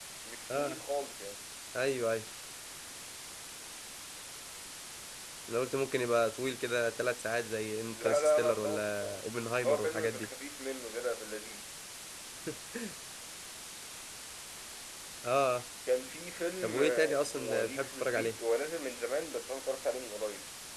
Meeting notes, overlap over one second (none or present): present